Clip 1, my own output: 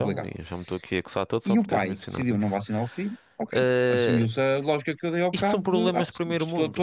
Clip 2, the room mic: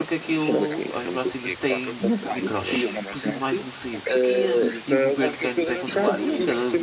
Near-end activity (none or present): present